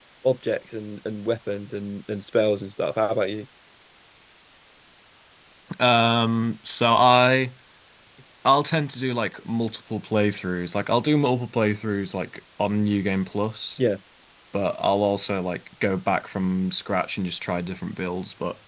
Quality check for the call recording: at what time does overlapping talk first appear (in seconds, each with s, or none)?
none